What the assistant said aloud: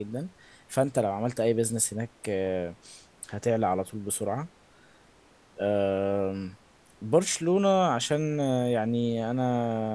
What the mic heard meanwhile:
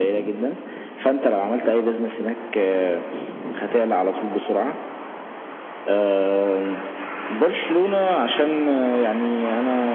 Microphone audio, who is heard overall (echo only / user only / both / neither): echo only